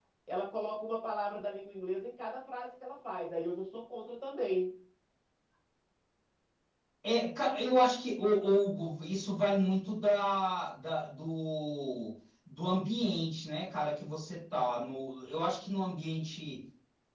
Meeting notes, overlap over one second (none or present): none